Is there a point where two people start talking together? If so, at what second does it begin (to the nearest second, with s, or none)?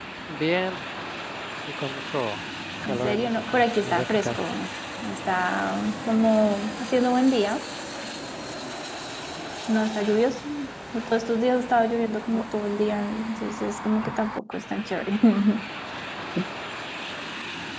3 s